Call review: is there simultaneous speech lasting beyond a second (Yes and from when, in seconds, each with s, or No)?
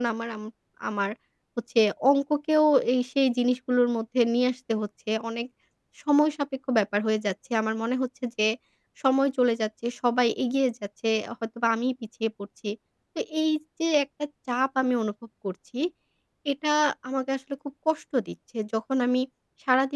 No